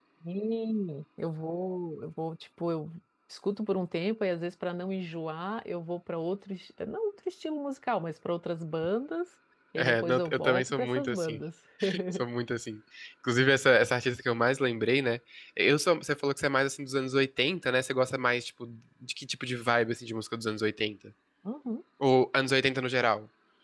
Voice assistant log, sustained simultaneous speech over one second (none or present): present